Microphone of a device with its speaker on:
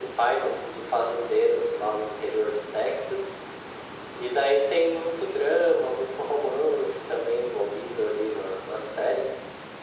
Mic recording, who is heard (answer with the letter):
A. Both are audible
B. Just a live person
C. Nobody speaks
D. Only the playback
D